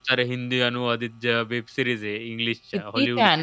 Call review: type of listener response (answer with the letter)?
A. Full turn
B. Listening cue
A